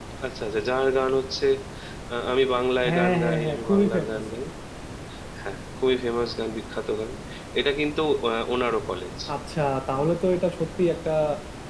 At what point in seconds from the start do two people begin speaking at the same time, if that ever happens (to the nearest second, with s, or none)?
3 s